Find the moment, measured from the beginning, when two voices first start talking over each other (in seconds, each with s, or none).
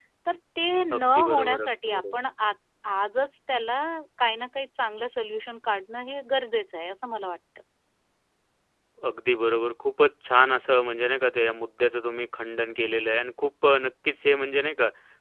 1.0 s